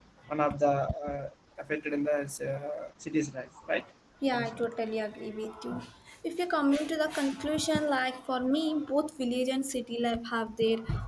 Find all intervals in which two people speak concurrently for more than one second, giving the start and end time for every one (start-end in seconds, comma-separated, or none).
none